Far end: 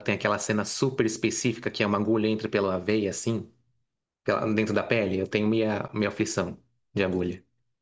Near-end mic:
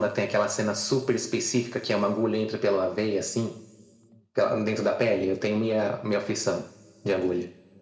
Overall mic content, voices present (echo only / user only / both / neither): echo only